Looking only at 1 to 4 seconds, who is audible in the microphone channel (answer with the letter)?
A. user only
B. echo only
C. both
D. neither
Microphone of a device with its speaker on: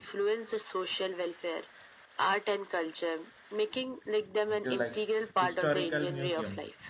B